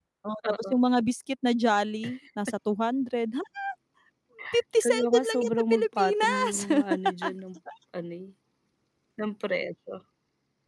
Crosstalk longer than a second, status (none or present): present